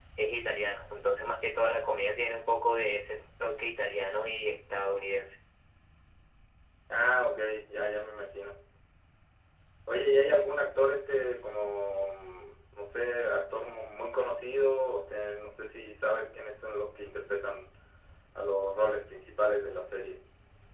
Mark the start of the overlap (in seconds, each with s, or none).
none